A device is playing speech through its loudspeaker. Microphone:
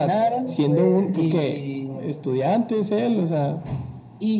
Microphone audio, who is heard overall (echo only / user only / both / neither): both